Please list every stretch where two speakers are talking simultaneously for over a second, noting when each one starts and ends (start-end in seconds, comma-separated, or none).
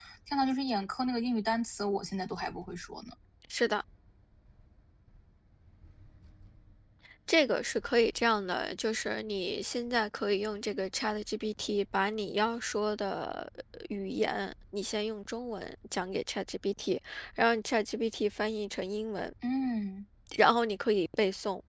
none